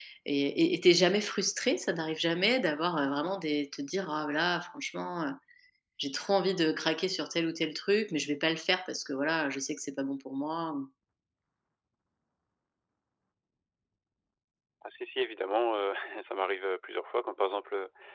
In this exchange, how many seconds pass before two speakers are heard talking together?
none

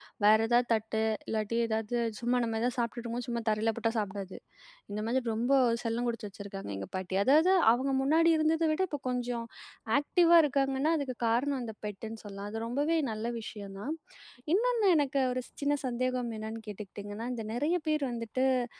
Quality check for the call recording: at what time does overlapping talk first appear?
none

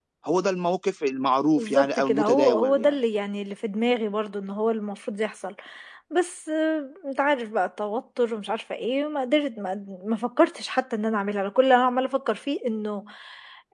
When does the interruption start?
1.6 s

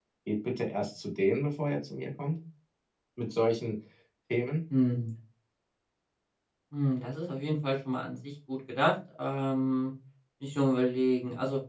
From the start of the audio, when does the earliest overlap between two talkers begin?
none

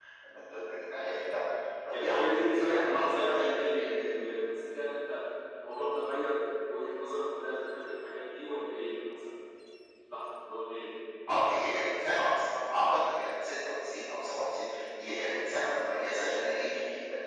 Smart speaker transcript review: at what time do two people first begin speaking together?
1.9 s

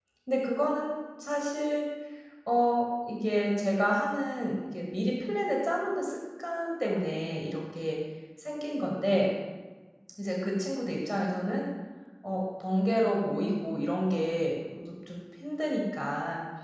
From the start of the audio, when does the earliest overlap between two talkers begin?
none

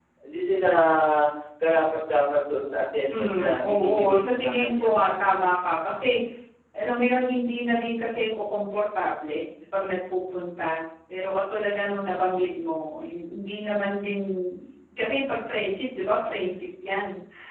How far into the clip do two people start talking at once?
3.1 s

